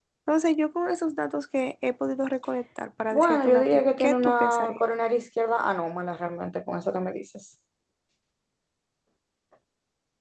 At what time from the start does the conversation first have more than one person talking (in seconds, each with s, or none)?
3.1 s